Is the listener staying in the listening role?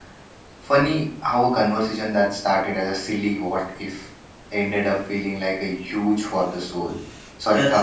No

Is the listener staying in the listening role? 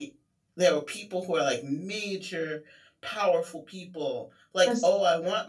Yes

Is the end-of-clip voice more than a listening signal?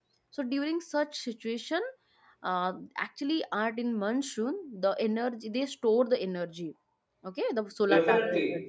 Yes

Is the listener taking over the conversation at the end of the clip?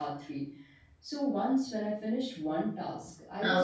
No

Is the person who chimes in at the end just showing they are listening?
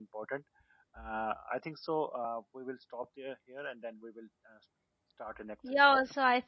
No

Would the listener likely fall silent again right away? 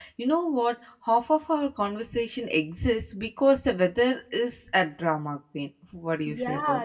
No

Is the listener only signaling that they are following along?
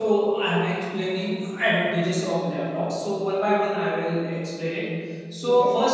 Yes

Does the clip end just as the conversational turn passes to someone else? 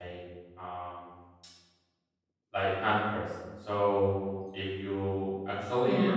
No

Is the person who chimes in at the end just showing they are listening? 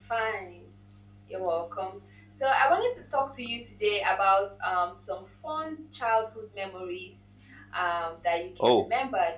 Yes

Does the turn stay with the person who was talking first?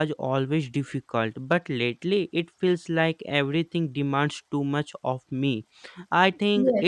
Yes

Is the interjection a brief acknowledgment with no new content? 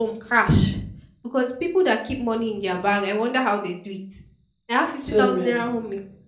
Yes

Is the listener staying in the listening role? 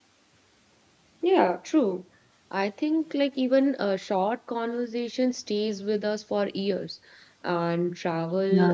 Yes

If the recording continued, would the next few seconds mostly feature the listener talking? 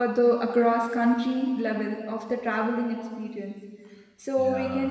No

